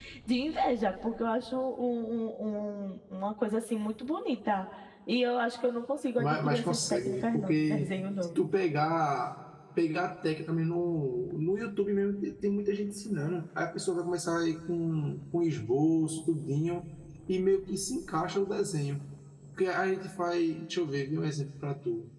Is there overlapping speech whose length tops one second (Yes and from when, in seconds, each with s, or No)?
Yes, from 6.2 s